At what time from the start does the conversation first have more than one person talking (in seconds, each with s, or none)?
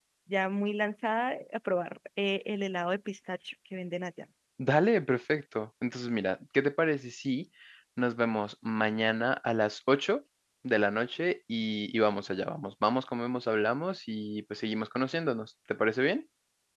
none